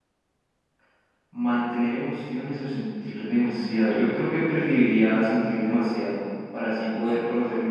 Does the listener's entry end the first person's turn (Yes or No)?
No